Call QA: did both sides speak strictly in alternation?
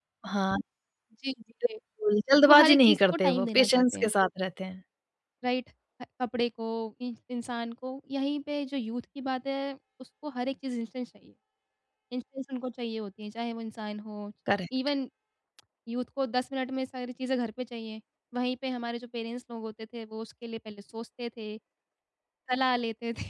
No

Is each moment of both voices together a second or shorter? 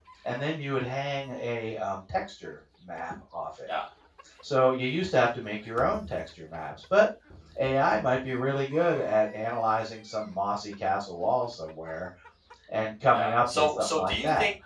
No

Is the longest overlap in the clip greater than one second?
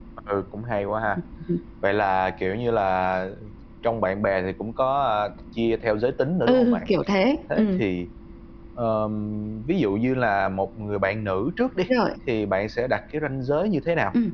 No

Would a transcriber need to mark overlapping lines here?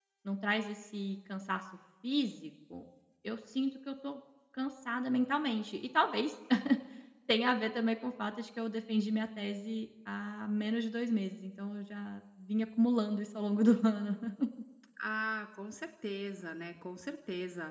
No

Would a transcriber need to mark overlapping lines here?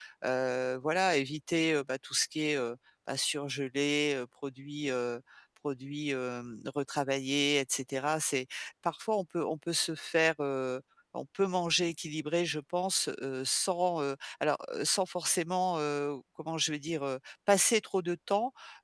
No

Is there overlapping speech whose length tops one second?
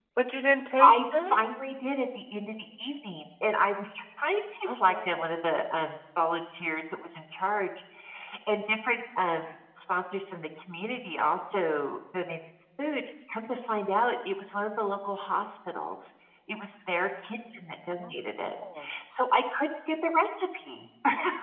No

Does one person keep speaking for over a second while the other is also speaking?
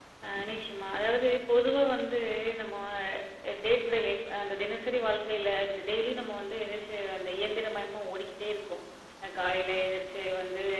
No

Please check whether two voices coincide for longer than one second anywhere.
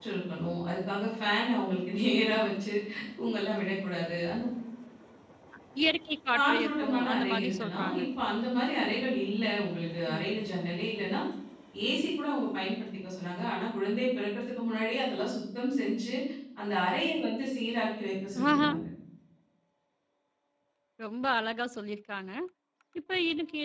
Yes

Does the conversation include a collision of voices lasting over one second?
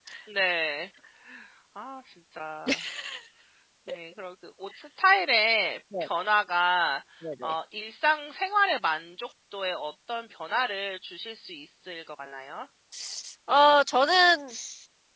No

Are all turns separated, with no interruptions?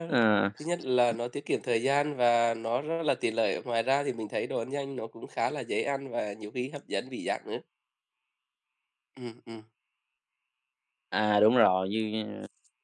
Yes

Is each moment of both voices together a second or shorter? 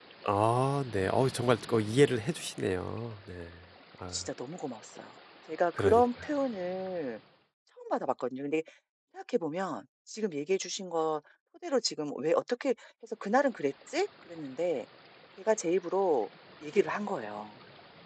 Yes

